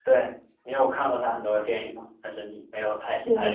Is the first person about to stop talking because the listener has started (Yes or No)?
Yes